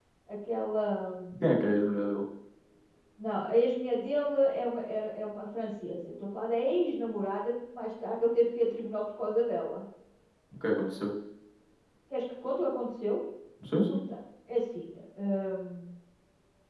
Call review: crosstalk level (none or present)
none